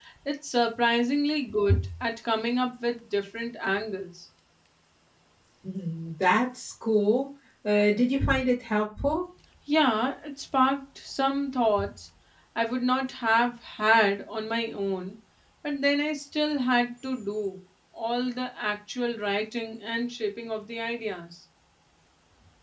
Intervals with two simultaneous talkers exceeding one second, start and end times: none

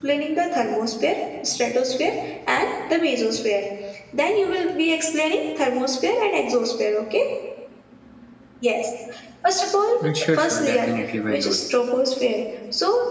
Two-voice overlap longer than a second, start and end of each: none

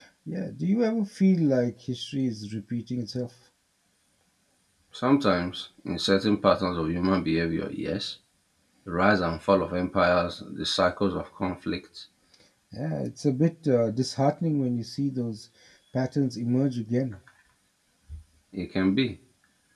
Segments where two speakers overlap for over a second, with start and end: none

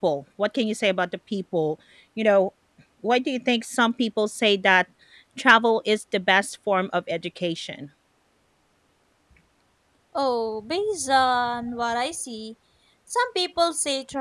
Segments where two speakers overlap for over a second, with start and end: none

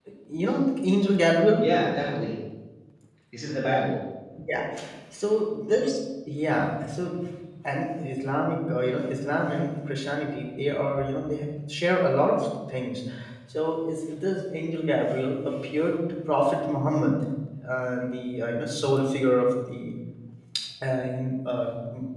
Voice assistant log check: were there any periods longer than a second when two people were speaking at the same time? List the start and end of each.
none

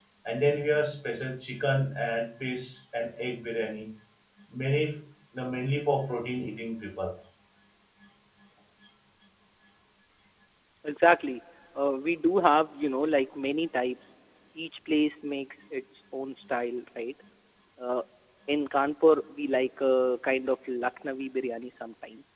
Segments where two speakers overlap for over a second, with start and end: none

